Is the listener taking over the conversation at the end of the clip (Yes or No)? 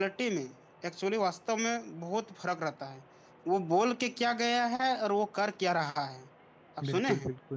Yes